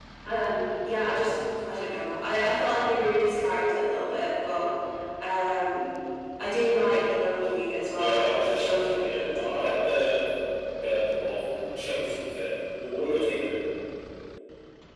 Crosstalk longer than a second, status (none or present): present